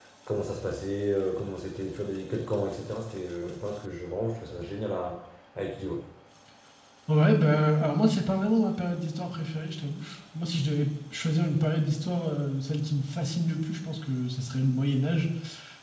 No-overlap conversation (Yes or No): Yes